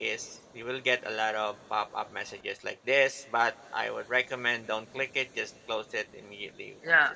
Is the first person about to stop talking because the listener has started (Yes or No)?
Yes